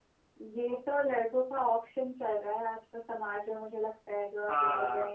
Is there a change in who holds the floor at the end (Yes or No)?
No